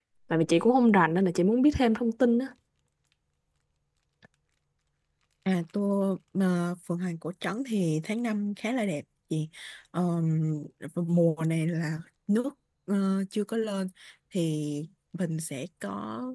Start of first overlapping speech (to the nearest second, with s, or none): none